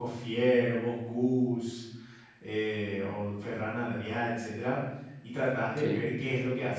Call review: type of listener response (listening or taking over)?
listening